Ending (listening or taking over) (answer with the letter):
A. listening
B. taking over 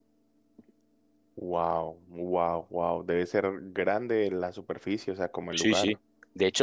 B